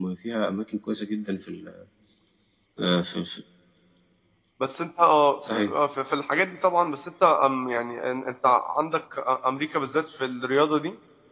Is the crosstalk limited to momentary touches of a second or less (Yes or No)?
Yes